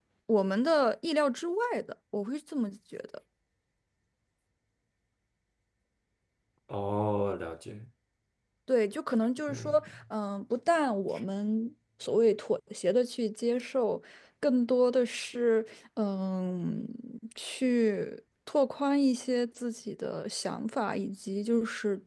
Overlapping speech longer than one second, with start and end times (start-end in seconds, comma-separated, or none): none